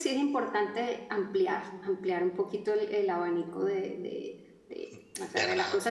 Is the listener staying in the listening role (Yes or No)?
Yes